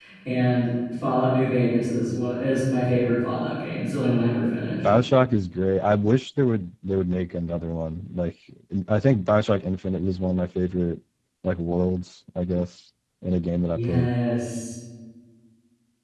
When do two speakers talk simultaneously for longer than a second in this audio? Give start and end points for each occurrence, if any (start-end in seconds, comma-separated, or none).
none